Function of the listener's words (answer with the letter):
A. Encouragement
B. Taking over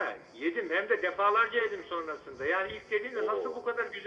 A